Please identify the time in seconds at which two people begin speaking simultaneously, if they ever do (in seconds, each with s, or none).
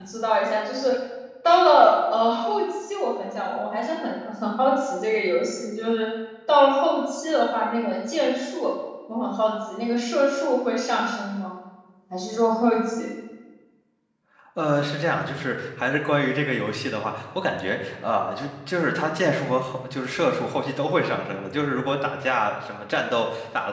none